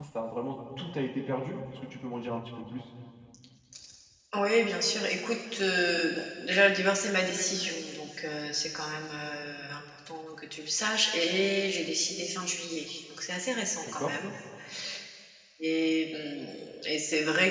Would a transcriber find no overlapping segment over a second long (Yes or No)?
Yes